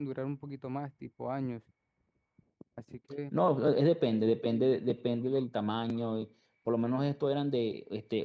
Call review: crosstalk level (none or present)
none